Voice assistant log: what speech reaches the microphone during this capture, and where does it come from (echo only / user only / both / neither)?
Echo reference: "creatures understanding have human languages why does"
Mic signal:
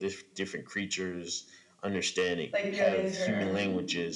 both